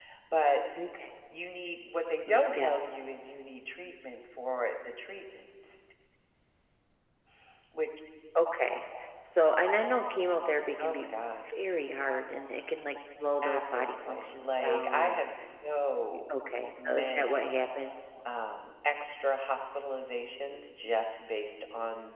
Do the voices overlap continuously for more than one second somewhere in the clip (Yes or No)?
Yes